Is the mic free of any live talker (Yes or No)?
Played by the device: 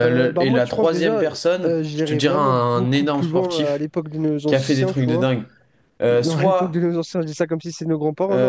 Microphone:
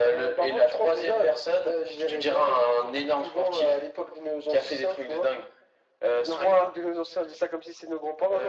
Yes